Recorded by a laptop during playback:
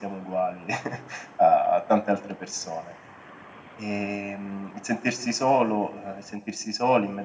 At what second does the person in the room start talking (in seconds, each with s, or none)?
none